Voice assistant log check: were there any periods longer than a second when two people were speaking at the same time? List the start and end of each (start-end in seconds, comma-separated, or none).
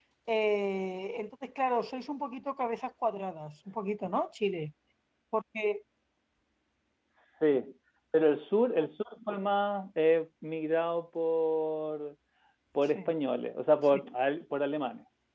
none